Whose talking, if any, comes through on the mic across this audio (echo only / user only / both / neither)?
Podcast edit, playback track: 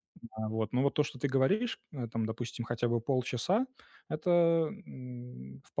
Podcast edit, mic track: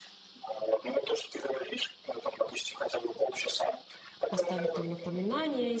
both